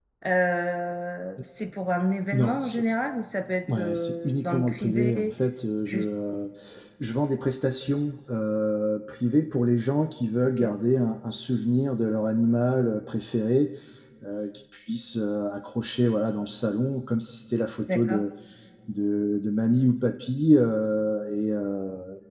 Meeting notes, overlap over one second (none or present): present